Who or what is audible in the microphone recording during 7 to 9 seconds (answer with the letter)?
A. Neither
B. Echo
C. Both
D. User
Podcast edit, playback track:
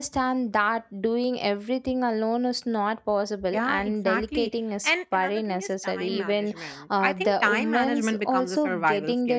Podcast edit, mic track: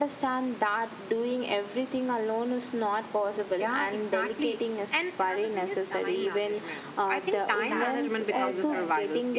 C